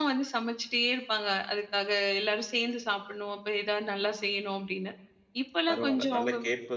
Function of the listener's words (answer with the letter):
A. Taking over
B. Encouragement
A